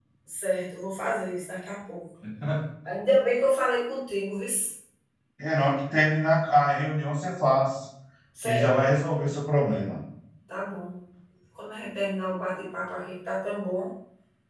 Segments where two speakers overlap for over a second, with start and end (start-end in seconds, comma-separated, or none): none